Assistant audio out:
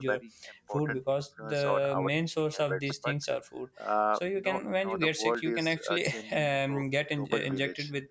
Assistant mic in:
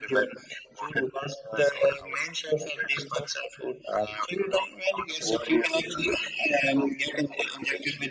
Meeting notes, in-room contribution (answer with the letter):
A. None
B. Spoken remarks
A